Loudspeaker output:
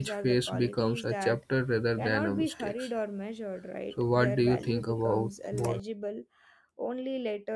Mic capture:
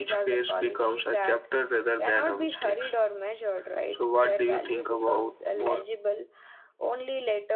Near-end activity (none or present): none